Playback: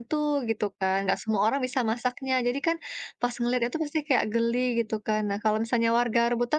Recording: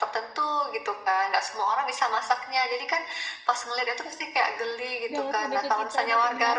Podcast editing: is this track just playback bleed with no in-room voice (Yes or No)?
No